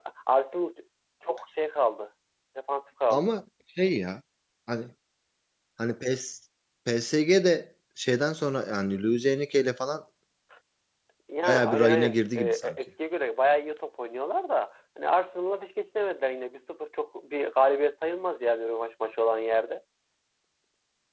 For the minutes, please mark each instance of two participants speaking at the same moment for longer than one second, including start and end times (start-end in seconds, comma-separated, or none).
11.4-12.8